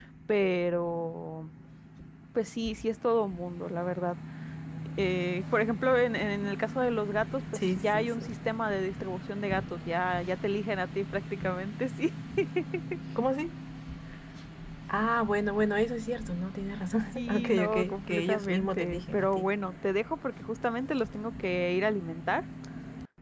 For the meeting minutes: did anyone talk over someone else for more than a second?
Yes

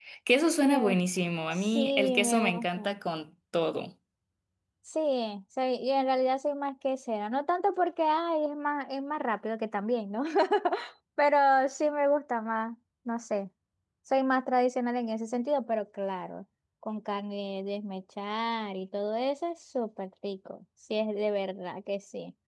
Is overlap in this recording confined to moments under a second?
No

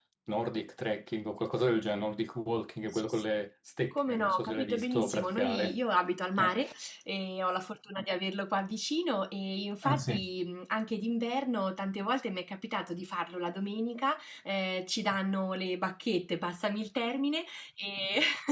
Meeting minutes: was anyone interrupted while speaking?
Yes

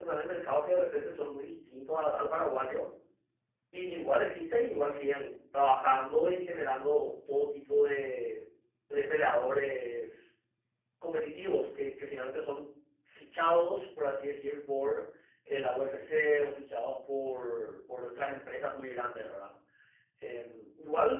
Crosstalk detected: No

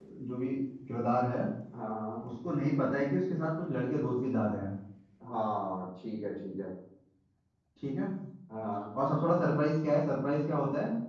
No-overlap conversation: Yes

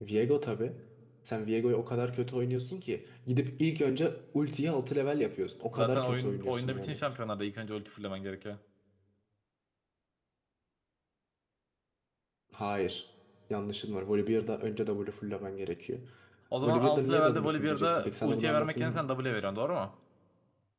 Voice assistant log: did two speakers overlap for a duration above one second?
Yes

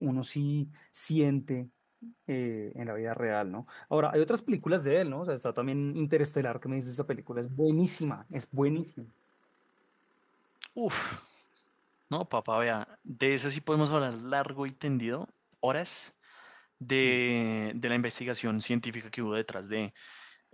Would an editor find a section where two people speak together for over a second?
No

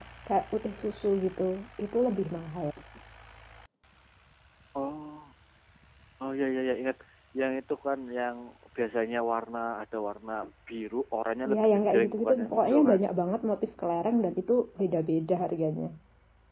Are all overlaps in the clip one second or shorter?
No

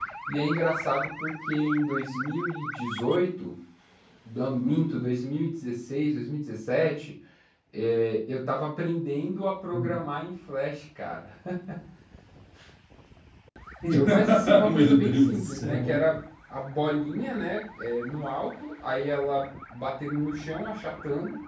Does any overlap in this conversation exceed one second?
Yes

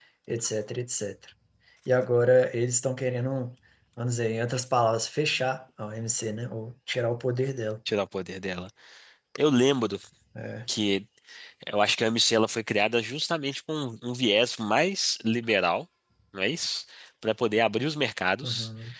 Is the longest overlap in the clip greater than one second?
No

